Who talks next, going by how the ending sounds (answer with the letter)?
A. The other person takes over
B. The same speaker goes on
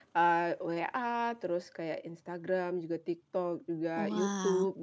B